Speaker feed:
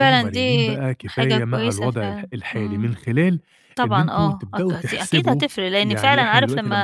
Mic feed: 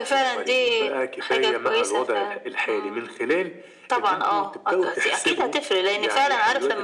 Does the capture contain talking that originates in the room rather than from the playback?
No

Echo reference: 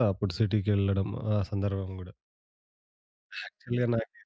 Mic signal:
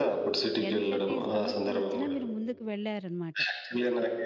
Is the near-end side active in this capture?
Yes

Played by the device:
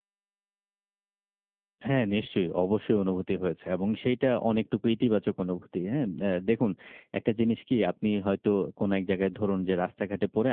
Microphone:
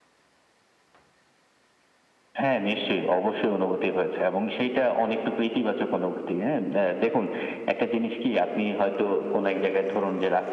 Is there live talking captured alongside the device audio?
No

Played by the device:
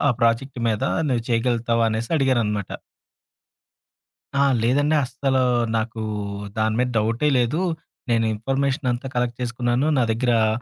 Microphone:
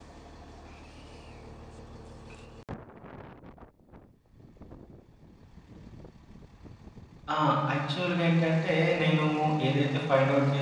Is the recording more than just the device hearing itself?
Yes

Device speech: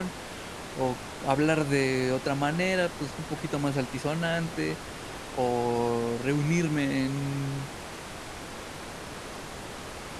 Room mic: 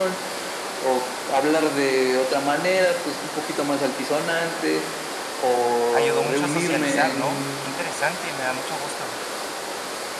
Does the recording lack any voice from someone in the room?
No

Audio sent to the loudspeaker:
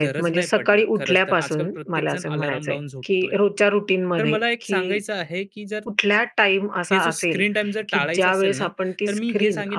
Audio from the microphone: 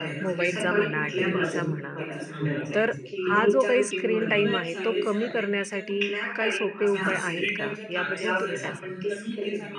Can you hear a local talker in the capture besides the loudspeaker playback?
Yes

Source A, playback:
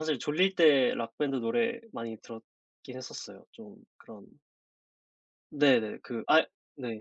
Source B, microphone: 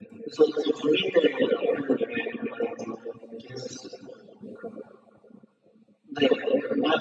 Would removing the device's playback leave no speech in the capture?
Yes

